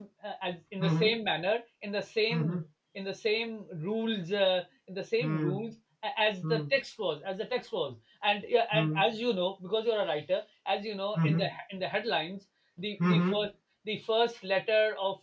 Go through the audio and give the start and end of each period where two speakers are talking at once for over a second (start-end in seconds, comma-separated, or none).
none